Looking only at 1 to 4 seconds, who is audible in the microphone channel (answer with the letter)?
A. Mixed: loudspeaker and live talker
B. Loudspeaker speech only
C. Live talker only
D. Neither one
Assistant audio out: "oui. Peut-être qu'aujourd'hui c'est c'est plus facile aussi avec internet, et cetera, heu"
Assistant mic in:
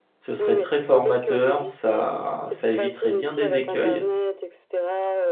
A